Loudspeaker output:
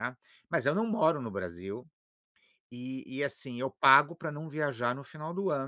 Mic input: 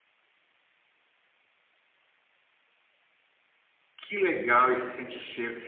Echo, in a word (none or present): none